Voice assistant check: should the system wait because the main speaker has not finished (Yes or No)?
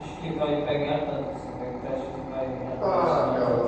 No